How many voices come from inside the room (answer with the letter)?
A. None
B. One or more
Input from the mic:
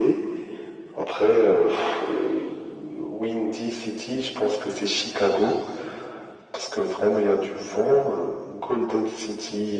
A